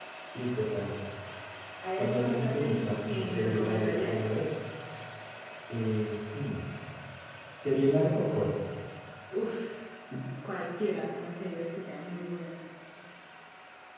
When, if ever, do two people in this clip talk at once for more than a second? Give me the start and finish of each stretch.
2.0-4.2

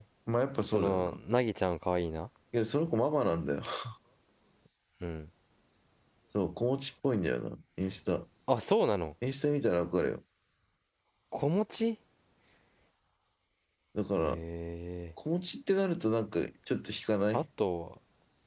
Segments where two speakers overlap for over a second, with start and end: none

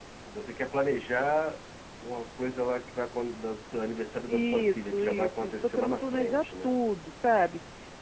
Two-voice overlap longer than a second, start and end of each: 4.3-6.7

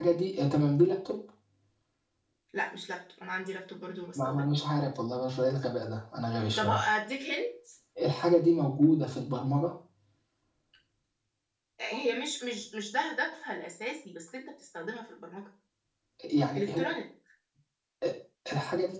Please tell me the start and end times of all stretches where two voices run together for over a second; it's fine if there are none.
none

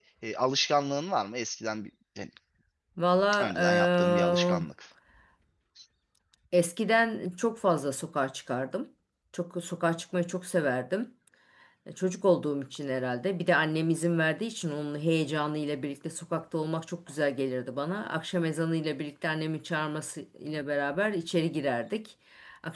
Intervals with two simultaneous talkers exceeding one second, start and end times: 3.4-4.6

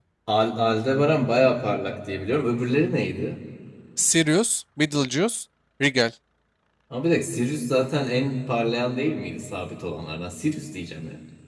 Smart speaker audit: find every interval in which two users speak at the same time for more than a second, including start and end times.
none

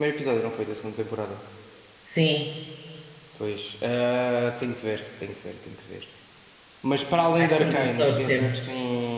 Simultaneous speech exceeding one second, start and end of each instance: 7.4-8.6

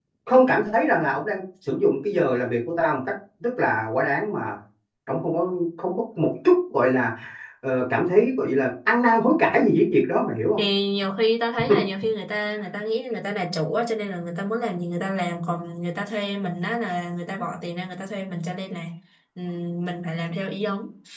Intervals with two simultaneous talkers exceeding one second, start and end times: none

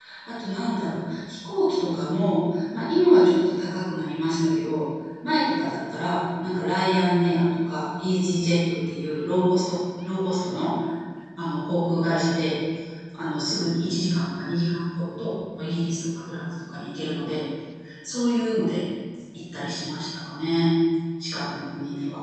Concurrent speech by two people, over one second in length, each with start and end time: none

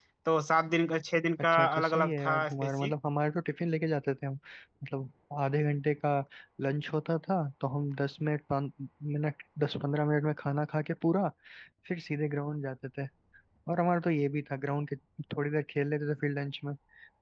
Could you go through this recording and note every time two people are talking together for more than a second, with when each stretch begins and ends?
1.5-2.9

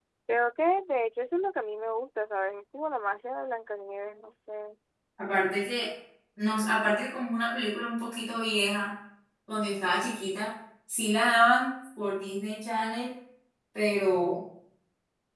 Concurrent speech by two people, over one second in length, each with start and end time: none

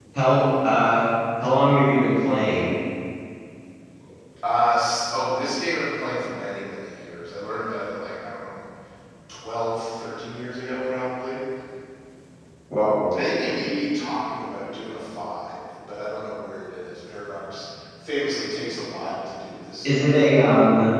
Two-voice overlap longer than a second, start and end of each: none

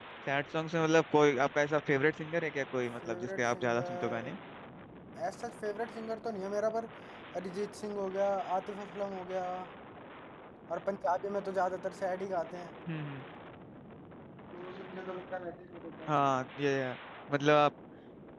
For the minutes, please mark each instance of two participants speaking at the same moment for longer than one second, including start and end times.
3.0-4.3

